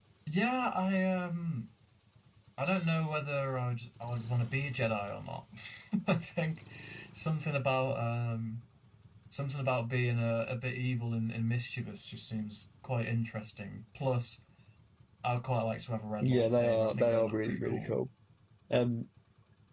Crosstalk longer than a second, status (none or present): present